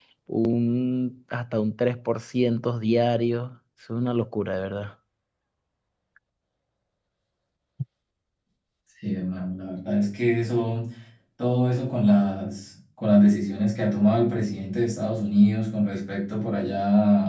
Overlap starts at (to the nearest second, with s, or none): none